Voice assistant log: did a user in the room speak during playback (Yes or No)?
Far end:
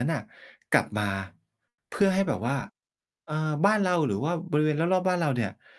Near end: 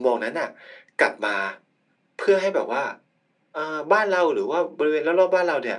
No